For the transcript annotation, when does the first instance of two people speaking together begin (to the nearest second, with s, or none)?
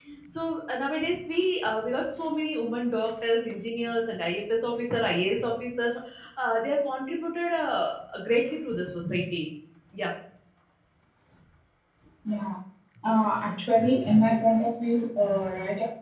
none